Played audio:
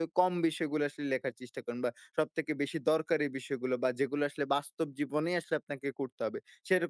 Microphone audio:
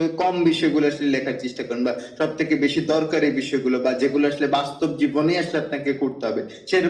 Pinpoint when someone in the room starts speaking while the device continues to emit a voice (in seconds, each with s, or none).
none